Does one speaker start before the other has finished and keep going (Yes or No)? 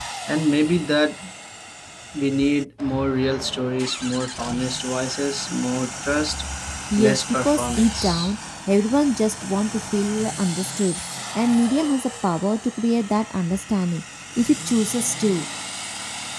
Yes